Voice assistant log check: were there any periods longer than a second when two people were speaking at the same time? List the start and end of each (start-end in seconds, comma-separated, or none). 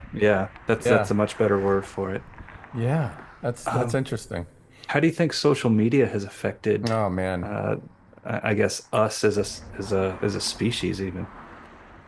none